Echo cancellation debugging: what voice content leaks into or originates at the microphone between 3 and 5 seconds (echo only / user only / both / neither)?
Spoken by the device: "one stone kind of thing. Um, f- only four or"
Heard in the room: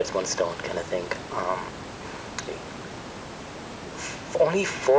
echo only